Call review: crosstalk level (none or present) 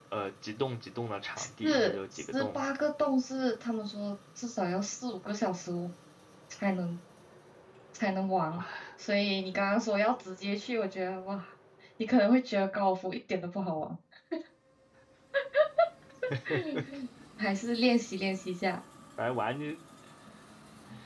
present